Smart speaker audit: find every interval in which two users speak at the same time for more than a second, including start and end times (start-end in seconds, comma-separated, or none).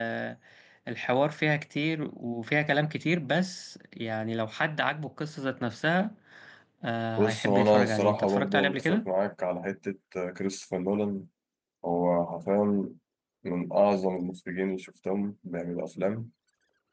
7.2-9.1